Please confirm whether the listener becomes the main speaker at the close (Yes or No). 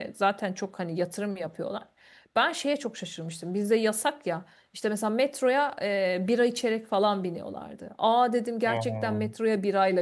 No